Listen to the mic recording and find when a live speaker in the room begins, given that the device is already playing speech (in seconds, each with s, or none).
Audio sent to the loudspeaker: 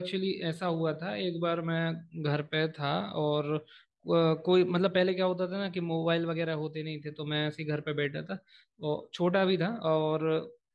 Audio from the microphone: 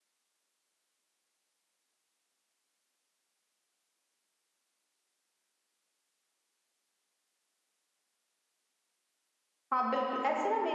9.7 s